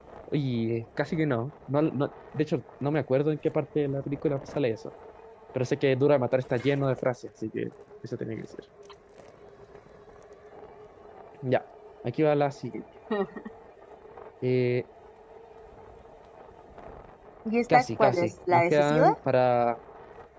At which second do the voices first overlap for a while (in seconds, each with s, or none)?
17.7 s